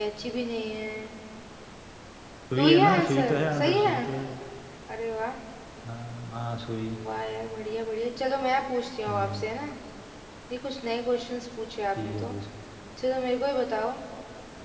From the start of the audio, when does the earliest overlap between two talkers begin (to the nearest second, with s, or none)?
3 s